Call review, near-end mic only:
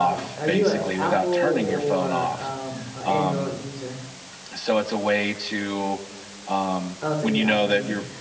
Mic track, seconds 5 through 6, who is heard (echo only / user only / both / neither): echo only